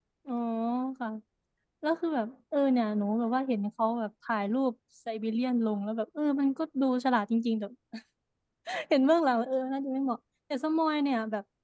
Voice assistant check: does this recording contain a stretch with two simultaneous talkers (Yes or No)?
No